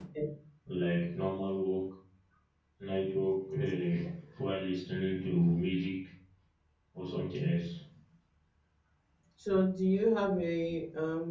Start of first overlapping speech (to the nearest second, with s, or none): none